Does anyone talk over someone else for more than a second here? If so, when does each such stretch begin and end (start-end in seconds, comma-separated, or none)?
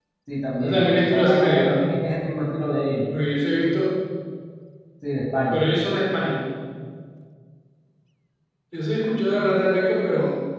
0.6-1.8